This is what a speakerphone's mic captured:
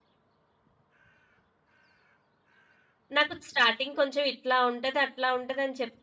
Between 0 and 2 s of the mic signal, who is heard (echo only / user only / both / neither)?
neither